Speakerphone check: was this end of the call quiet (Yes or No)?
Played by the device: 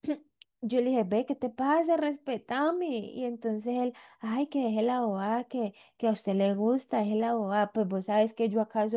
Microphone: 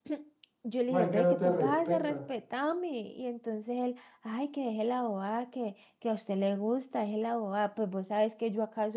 No